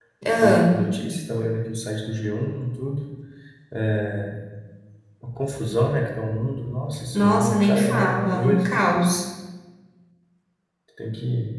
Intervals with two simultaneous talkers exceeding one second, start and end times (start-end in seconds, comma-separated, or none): 7.1-8.8